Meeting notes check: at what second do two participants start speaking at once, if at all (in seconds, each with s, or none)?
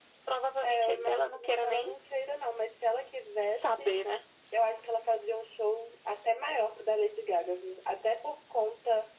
0.6 s